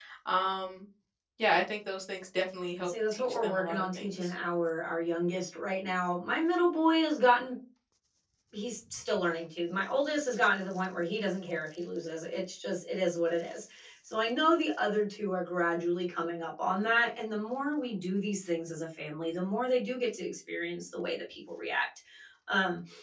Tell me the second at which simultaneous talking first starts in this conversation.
3 s

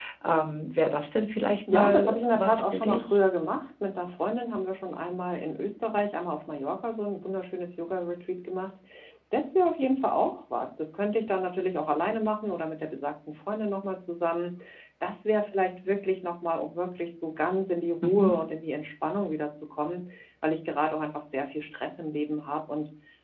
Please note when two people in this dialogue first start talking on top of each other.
2 s

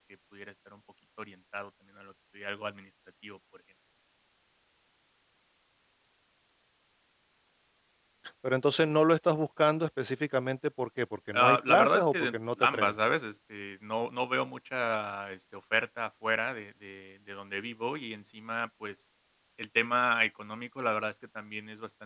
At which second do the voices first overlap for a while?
11 s

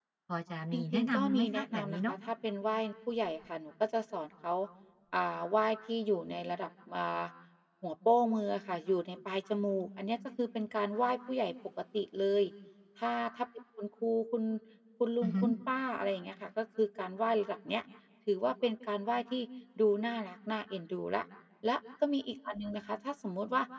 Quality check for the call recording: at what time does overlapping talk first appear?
1 s

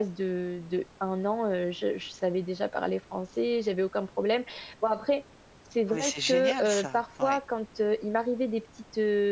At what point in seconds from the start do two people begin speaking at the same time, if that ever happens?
6 s

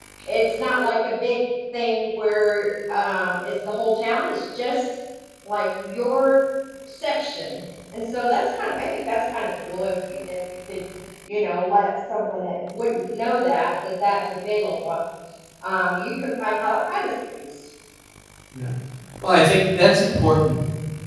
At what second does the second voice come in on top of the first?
none

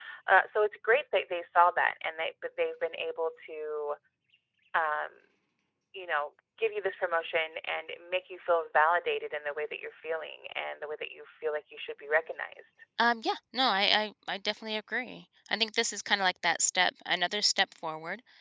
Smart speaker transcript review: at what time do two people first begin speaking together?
none

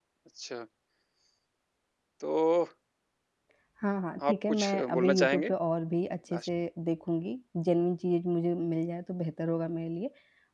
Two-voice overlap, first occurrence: 4 s

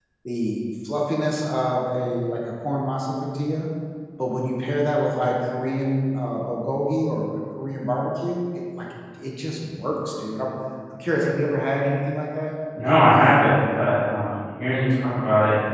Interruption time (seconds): none

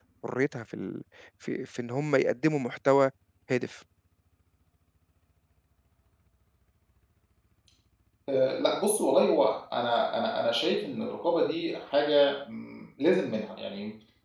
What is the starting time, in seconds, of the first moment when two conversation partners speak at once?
none

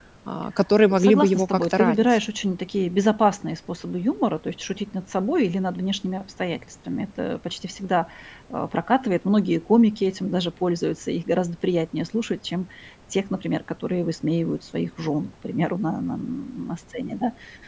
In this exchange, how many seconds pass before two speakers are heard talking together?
1 s

